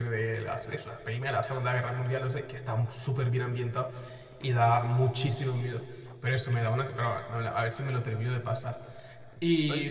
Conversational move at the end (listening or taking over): listening